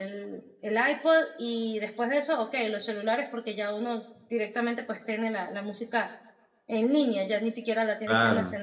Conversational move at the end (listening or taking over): taking over